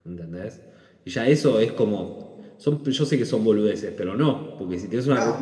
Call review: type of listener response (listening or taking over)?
listening